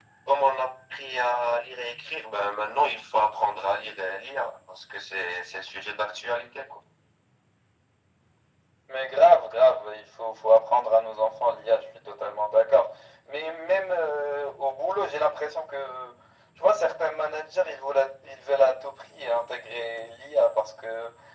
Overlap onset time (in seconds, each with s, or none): none